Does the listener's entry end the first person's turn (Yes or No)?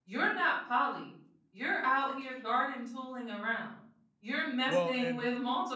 No